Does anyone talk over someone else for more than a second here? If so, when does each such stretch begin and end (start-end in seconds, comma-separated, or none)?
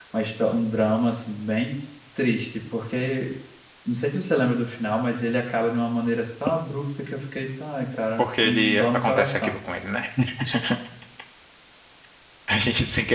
8.2-9.6